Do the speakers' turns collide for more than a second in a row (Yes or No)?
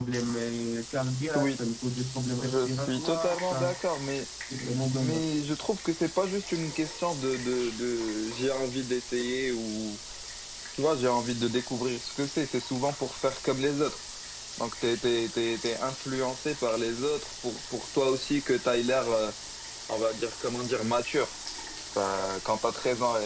Yes